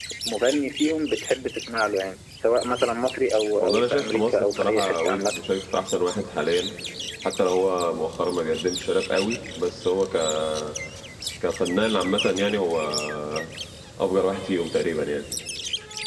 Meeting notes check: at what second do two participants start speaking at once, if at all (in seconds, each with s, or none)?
3.6 s